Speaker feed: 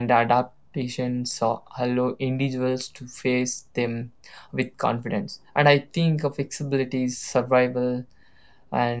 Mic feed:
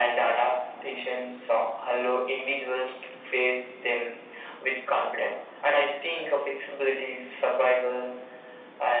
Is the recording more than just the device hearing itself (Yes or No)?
No